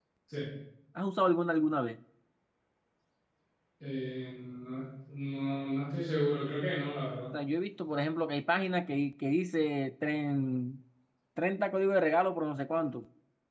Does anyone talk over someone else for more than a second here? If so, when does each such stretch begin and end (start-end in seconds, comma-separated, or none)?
none